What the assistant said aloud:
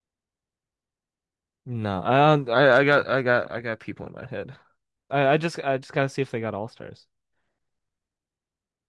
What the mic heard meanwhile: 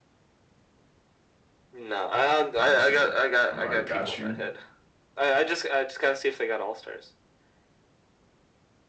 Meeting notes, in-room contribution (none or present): present